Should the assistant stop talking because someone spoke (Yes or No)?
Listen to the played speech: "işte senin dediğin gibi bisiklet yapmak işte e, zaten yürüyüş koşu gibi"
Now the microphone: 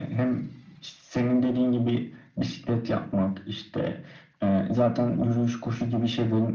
No